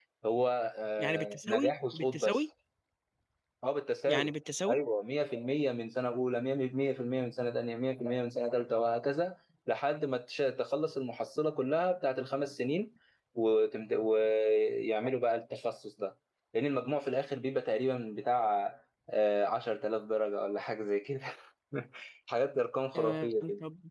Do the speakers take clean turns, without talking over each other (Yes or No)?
No